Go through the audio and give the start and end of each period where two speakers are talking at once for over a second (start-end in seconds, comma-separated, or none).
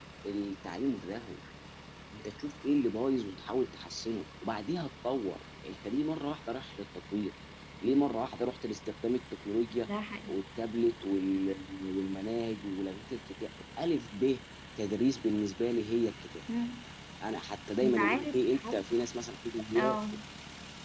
17.8-19.0